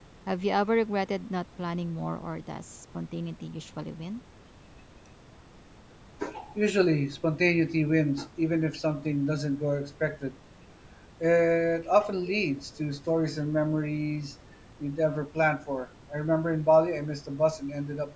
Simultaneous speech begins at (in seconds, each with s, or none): none